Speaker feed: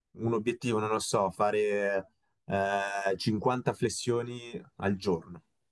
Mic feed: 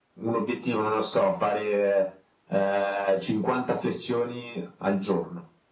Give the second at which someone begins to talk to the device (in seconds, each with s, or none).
none